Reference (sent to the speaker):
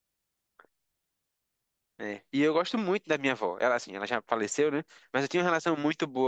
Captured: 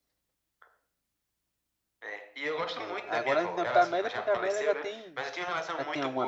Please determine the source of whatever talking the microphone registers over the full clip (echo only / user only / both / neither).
both